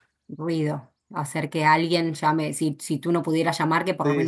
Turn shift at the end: Yes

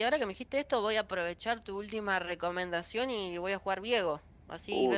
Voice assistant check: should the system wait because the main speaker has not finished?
No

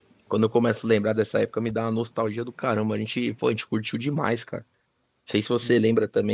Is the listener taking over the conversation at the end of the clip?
No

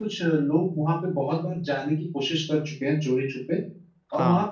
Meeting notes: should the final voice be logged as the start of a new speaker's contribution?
No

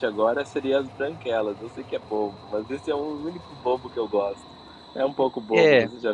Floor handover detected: Yes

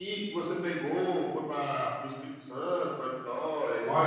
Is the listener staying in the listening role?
No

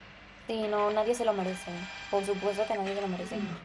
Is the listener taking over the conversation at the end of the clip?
No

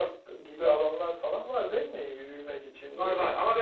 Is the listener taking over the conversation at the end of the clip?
Yes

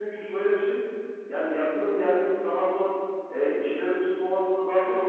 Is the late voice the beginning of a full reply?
No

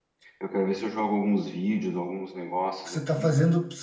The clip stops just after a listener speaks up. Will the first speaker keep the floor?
No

